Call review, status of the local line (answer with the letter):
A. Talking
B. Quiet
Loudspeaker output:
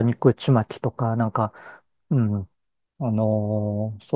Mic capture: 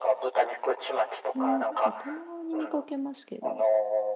A